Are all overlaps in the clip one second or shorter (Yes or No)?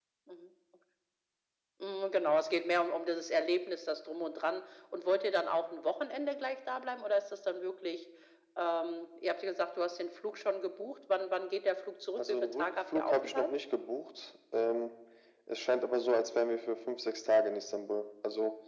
No